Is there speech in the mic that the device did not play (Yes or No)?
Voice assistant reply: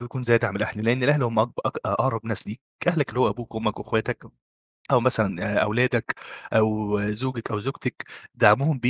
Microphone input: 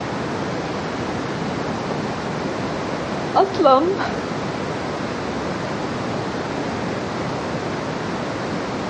Yes